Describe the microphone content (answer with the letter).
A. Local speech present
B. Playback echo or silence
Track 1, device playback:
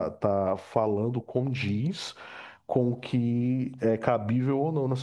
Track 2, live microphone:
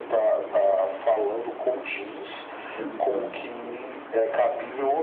A